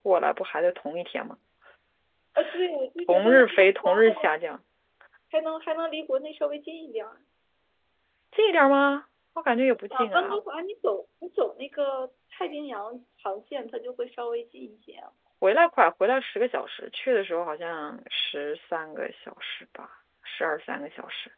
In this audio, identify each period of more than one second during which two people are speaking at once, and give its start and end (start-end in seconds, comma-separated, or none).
3.1-4.3